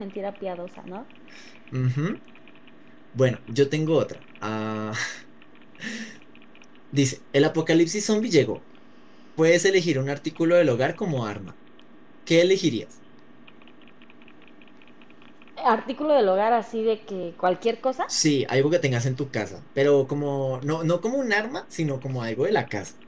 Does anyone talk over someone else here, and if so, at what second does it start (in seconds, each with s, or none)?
none